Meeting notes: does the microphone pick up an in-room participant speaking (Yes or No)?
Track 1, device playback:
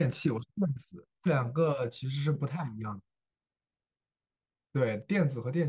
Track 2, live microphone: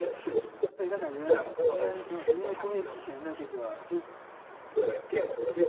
Yes